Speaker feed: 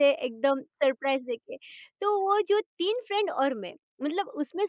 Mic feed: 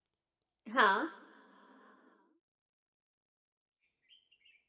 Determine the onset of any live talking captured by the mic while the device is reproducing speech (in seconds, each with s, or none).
0.7 s